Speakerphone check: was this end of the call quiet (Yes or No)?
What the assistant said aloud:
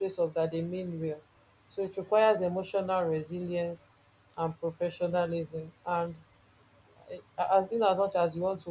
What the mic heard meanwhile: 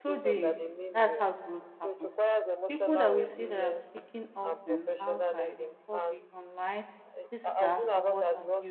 No